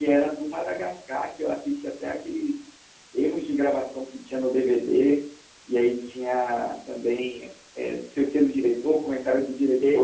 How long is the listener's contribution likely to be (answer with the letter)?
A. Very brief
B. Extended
B